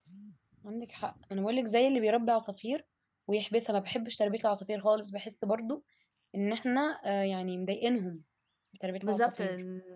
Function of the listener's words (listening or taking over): taking over